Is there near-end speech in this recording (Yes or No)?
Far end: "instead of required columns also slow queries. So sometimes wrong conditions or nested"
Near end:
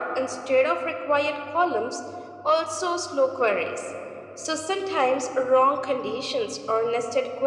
No